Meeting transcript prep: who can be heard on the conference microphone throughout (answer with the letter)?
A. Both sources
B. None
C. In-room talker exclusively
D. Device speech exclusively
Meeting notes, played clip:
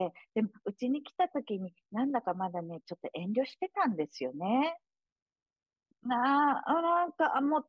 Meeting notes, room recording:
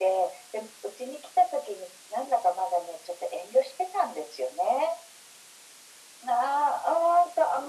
D